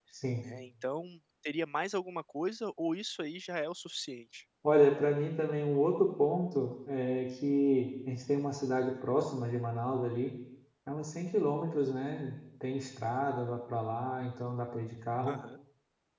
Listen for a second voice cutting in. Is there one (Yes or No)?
No